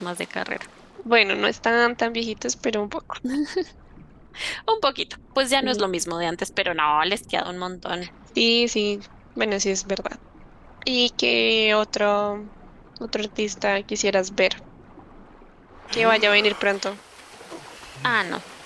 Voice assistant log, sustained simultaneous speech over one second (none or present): none